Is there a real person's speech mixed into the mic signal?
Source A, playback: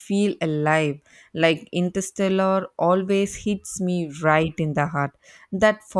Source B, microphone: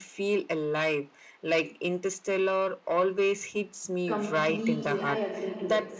Yes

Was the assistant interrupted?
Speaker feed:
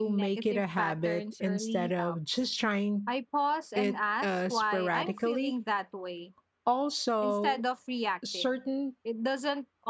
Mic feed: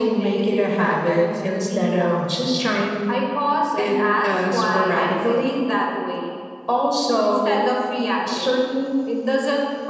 No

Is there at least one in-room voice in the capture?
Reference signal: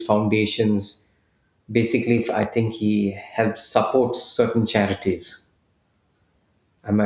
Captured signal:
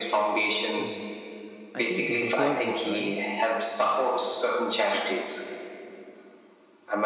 Yes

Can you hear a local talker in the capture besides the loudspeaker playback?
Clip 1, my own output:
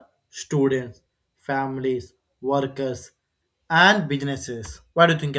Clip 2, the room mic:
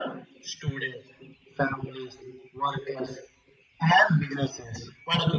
No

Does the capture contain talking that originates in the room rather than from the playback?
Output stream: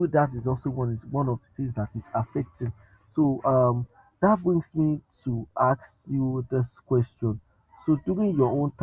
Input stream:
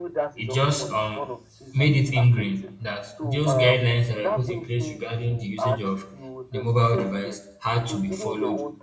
Yes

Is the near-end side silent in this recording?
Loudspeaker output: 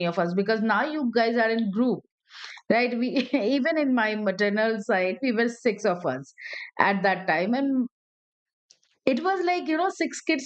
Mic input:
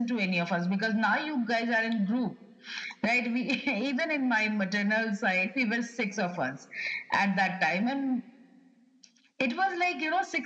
Yes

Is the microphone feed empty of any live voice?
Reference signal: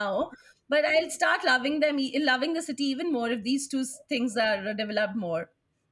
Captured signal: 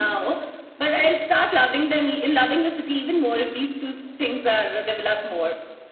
Yes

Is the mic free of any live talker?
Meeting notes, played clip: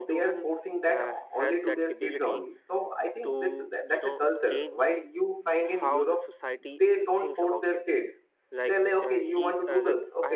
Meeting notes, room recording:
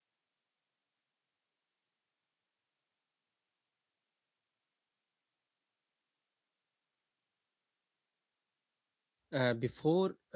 No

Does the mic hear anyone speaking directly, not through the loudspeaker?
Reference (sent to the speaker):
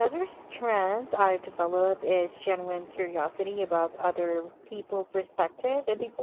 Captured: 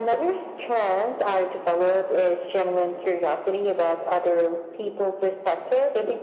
No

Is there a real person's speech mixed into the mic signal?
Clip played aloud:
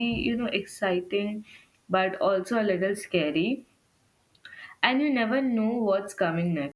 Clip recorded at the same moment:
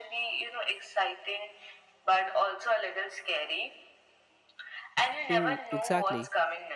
Yes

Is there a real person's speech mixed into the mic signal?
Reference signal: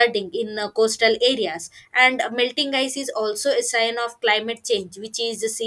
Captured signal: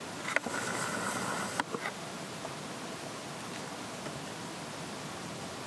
No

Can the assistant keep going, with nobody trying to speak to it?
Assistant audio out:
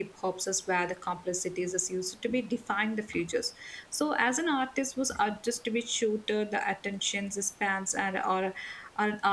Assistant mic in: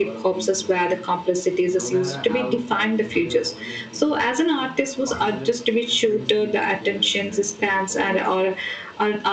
No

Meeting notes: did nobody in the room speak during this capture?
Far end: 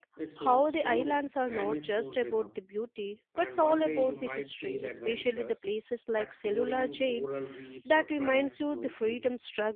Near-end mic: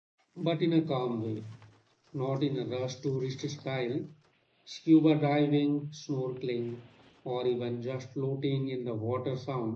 No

